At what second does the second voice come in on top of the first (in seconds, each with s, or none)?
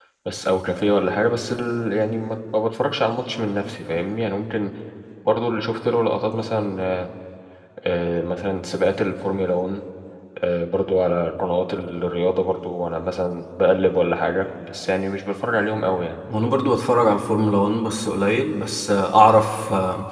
none